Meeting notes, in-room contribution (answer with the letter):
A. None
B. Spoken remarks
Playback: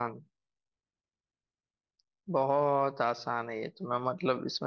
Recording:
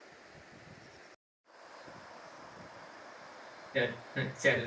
B